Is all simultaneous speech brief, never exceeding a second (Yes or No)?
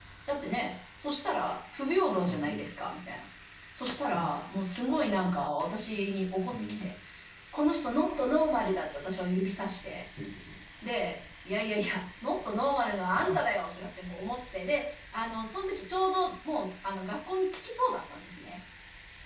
Yes